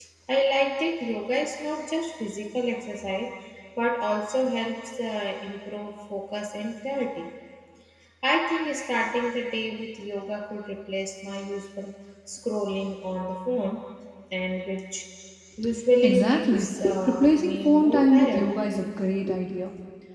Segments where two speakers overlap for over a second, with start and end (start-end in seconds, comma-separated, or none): 16.0-18.4